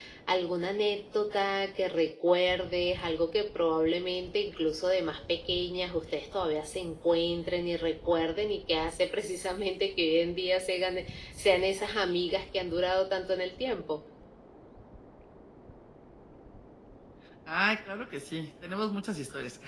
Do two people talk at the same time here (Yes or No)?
No